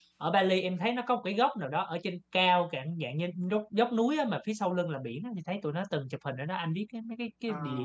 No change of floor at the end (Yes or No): No